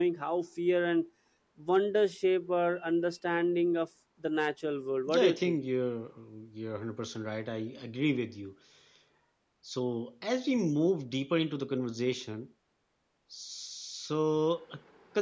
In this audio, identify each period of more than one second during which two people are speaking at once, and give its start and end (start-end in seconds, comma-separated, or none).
none